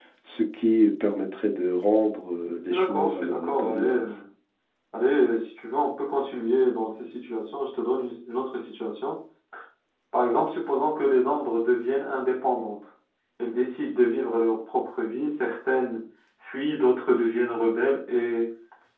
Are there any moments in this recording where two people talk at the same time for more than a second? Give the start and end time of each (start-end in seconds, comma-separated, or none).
2.7-4.1